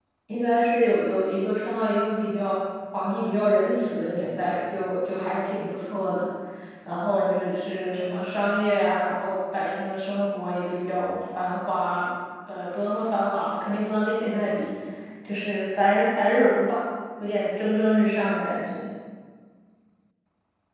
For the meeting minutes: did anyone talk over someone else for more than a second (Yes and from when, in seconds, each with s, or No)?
No